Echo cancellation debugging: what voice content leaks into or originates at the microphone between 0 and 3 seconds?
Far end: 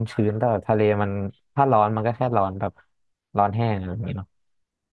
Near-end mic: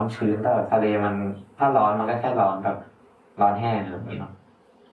echo only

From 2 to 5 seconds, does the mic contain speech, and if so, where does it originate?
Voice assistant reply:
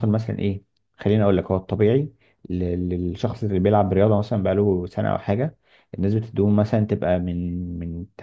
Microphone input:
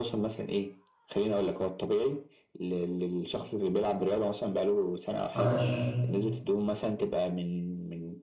echo only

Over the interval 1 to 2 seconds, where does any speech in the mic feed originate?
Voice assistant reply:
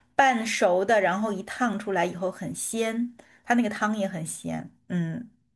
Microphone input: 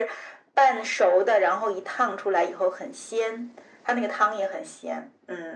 echo only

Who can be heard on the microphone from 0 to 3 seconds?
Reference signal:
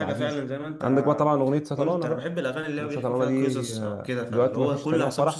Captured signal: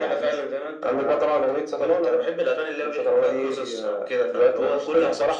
echo only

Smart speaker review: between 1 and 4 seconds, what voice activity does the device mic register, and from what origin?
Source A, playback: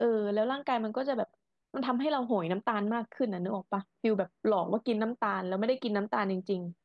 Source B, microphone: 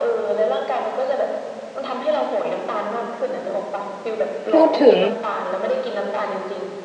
echo only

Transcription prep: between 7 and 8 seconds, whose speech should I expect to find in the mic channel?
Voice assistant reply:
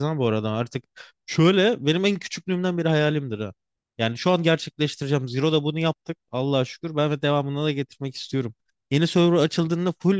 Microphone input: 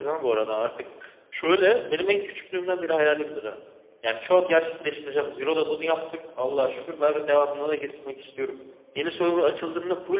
echo only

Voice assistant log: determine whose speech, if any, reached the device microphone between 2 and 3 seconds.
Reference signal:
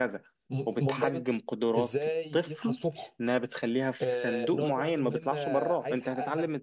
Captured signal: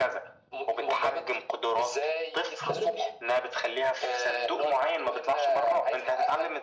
both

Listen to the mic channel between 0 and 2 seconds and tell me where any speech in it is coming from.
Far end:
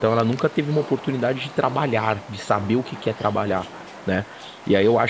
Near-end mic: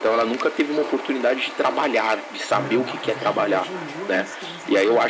echo only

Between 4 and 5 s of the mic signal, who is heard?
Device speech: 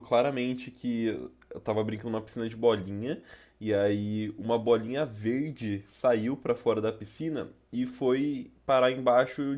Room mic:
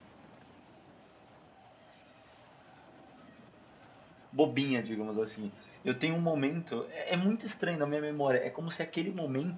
user only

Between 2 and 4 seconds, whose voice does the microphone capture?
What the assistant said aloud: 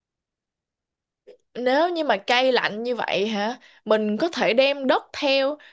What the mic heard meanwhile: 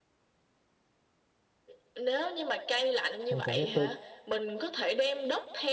both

